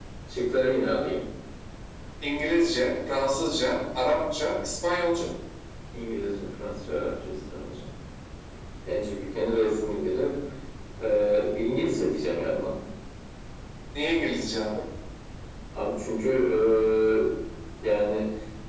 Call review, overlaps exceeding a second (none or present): none